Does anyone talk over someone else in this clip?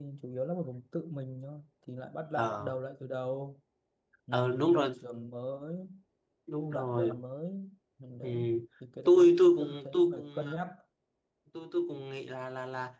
Yes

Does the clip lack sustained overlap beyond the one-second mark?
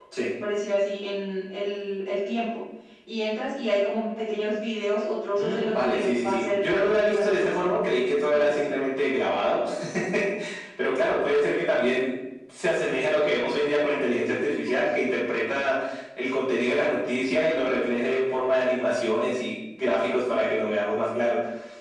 No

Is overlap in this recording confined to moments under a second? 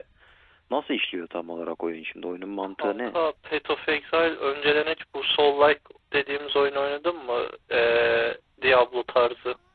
Yes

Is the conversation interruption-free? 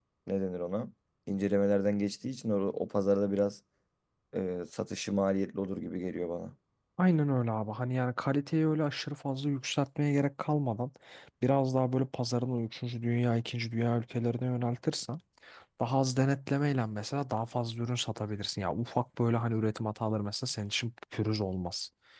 Yes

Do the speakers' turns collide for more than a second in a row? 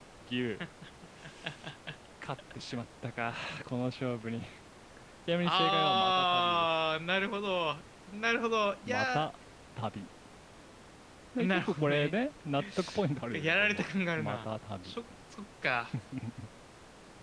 Yes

